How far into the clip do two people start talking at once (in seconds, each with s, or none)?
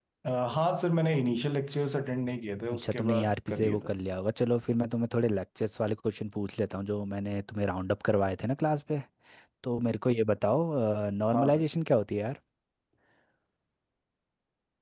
2.7 s